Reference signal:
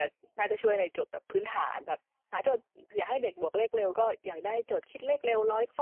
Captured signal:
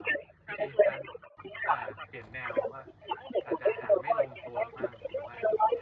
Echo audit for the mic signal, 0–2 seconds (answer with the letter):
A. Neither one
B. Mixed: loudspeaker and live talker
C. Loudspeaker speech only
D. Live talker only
B